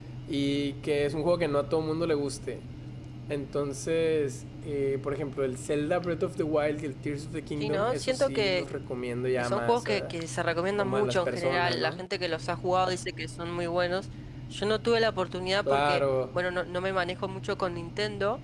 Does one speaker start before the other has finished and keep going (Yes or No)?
Yes